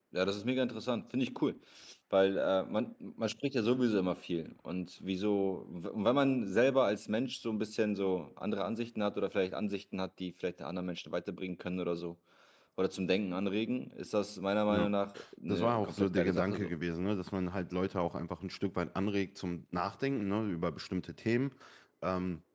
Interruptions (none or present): present